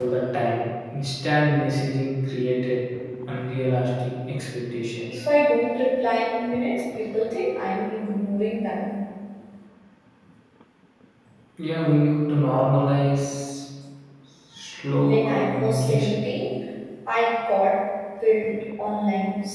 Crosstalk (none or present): present